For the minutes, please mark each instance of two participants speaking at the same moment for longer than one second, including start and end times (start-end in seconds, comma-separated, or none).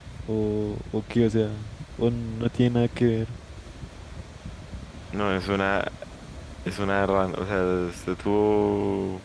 none